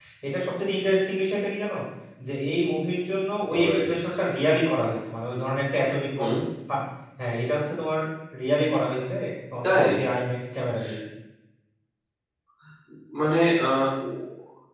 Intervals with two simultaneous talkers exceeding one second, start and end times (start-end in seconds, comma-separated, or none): none